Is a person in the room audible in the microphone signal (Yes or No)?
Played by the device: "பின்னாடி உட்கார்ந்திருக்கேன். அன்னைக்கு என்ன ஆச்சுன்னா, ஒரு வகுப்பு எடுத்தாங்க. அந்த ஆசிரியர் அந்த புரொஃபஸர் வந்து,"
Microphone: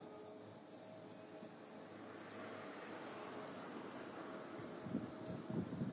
No